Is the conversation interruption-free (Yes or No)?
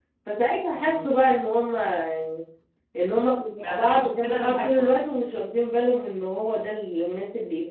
No